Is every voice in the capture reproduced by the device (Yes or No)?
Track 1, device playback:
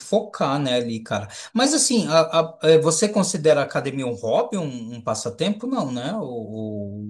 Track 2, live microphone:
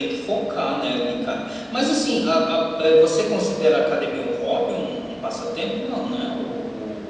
Yes